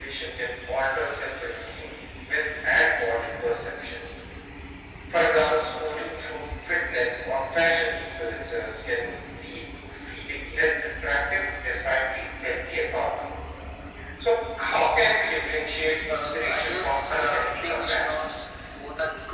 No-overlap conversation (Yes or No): No